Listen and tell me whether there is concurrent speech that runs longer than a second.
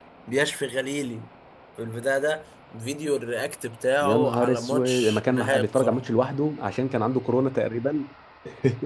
Yes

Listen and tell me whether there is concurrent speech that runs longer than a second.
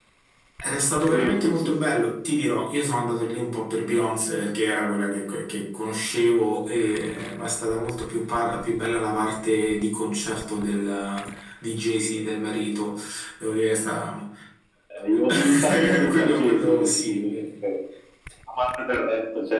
Yes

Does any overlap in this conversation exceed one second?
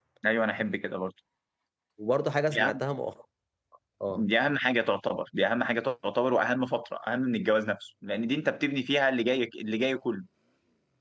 No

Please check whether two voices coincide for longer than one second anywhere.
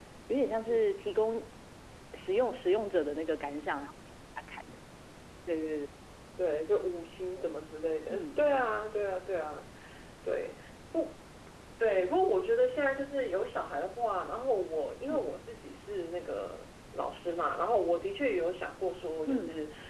No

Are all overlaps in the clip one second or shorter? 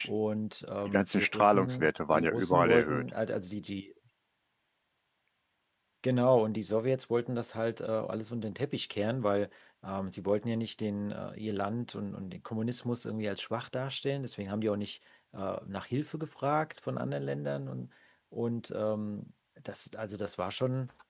No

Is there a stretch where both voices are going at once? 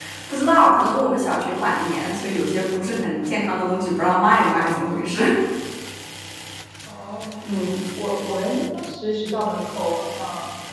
No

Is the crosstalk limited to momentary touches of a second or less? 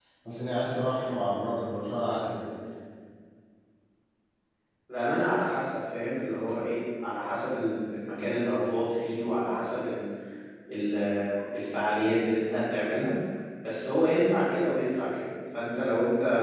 Yes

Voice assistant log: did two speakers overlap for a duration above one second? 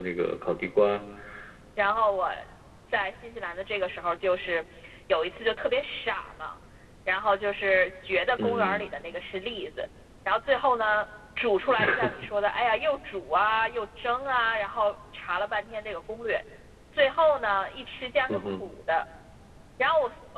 No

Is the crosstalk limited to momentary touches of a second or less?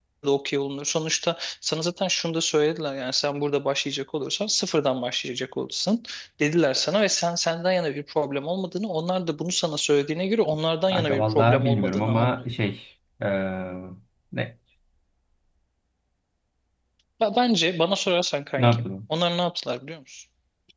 No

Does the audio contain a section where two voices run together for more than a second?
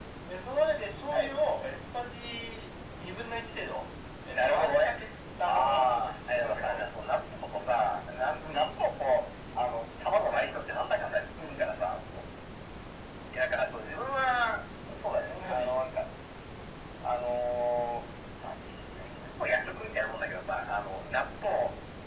Yes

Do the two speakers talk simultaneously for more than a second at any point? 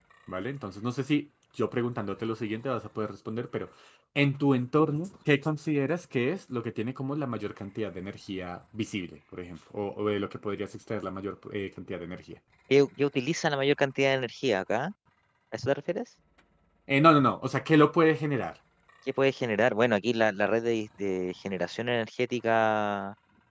No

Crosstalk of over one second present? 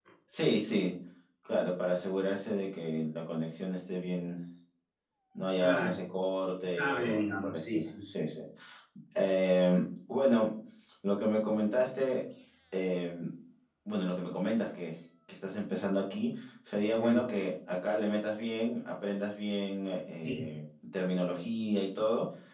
Yes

